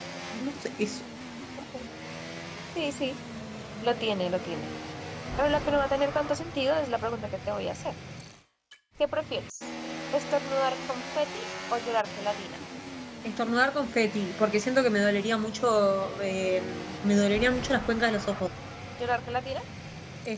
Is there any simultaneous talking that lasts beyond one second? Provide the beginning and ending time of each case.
none

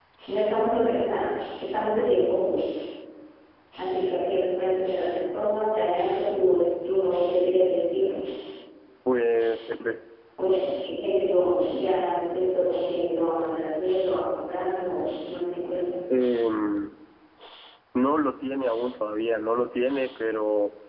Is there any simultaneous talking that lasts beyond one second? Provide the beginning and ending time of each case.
none

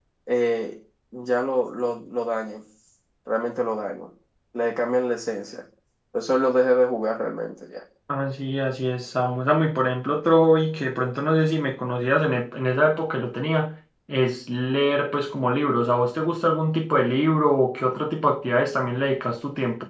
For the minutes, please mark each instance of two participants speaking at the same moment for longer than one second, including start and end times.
none

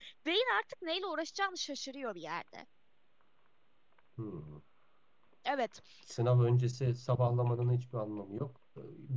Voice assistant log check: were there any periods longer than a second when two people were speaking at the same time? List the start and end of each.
none

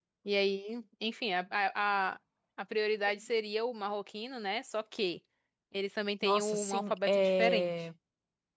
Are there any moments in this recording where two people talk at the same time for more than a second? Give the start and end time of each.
6.2-7.7

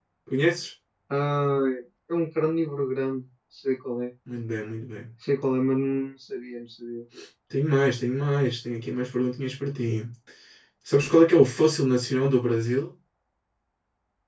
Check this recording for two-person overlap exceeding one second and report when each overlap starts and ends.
none

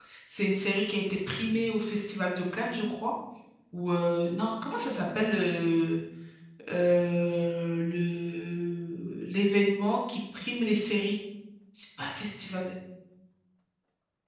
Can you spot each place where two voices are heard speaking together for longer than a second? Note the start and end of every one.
none

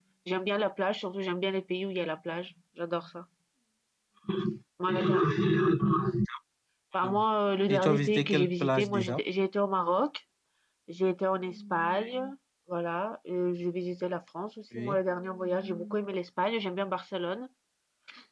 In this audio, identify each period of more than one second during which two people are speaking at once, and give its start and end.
7.7-9.2

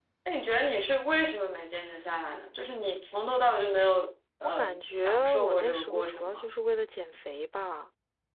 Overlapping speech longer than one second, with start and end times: 4.6-6.5

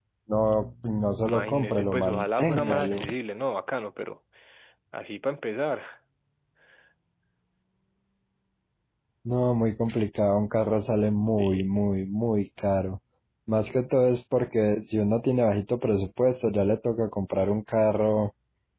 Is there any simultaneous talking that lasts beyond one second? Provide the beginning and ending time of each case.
1.2-3.0

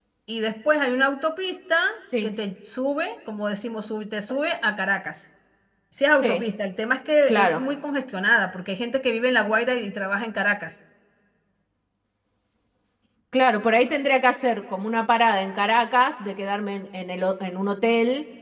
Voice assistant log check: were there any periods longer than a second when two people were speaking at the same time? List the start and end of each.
none

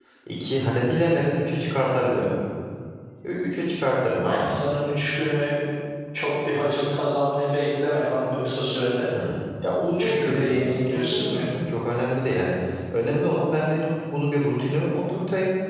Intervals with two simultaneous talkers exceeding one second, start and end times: 10.0-11.4

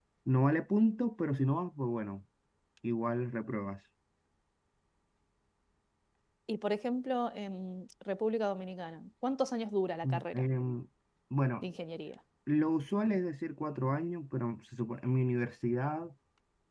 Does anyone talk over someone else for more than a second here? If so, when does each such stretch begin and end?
none

